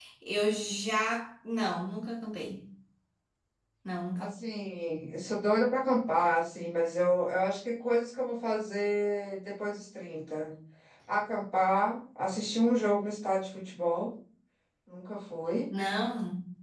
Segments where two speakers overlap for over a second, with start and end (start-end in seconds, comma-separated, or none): none